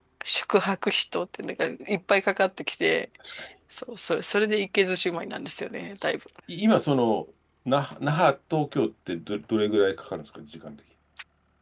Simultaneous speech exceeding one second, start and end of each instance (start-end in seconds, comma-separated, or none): none